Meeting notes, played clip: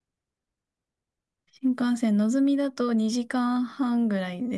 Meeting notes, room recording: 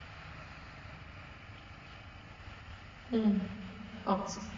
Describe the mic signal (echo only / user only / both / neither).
user only